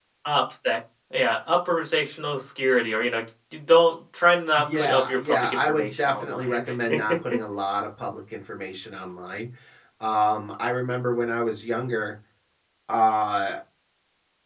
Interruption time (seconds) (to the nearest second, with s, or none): 5 s